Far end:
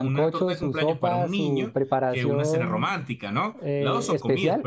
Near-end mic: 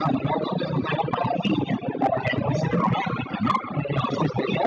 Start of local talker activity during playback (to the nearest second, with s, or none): none